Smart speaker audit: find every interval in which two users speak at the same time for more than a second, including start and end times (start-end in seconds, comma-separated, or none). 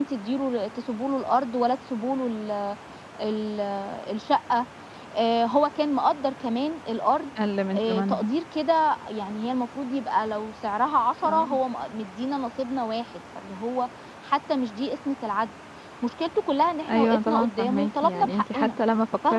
16.9-18.8